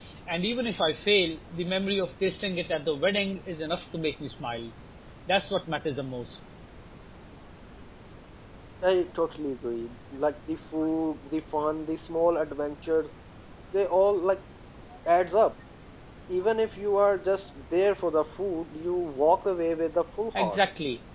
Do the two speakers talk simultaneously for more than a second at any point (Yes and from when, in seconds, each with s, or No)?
No